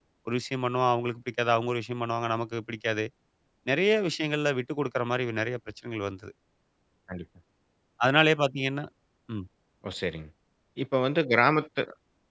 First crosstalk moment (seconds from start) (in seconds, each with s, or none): none